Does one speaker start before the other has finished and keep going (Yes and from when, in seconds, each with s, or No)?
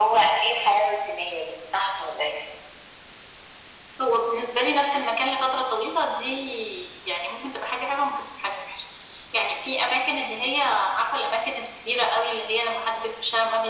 No